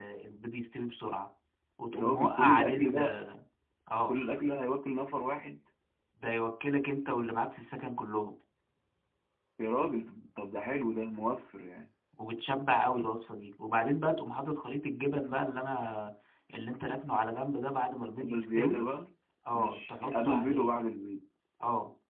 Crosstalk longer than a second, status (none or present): present